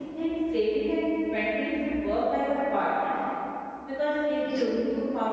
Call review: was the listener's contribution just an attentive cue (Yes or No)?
Yes